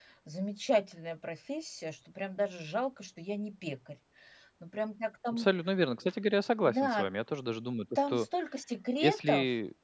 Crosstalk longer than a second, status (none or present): none